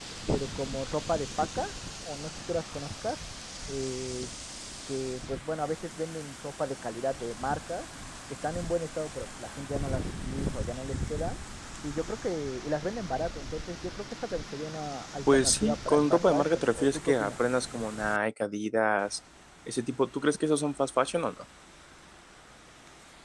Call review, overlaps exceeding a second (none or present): present